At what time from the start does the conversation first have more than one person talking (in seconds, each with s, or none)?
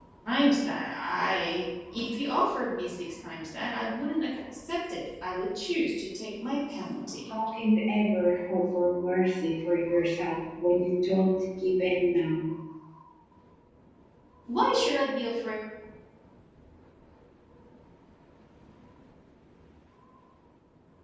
none